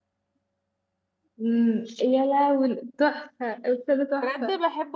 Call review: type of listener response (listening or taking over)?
taking over